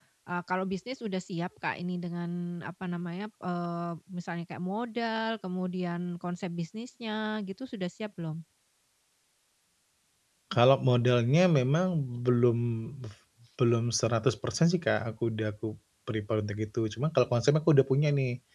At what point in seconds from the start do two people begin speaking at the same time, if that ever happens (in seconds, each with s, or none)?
none